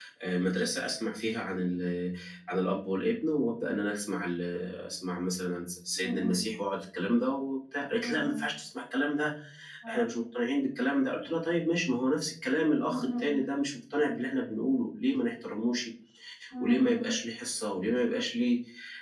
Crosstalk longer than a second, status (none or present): none